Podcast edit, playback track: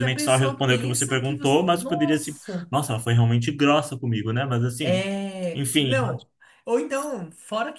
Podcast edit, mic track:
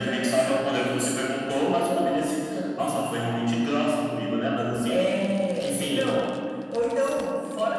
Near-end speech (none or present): none